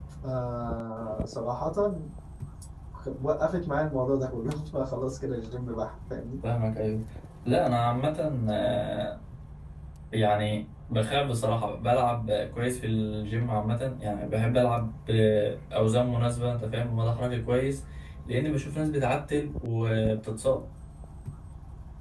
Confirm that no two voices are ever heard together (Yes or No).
Yes